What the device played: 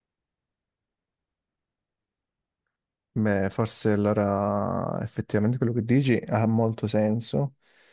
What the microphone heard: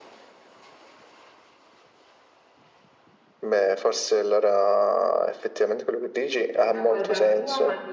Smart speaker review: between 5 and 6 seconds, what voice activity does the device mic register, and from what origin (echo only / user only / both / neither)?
echo only